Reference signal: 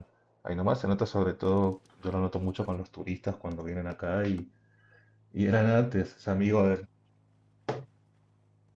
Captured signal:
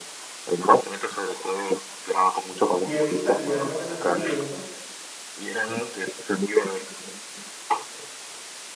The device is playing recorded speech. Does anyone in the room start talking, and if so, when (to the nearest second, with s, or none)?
3 s